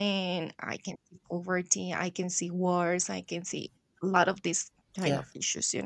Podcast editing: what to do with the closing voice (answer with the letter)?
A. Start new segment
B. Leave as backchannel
B